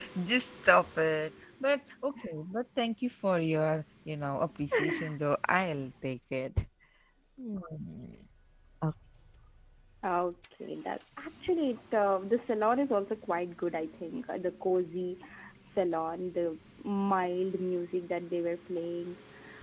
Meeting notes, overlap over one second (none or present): none